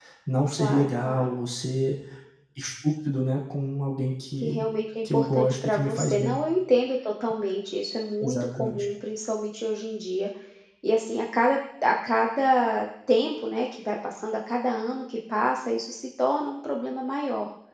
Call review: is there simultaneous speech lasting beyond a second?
Yes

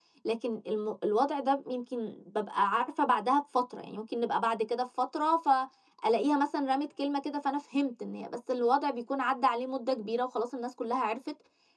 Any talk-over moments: No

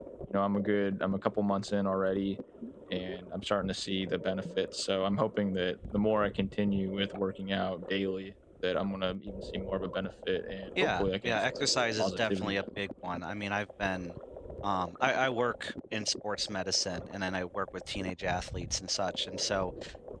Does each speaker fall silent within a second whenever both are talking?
No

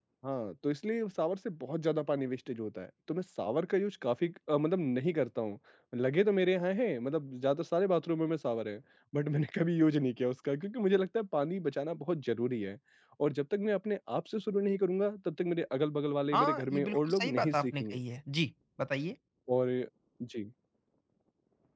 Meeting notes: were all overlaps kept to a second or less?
No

